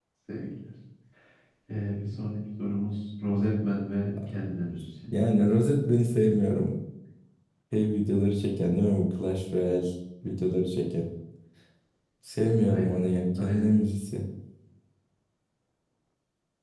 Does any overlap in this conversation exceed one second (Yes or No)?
No